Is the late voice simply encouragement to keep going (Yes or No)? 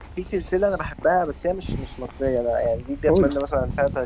Yes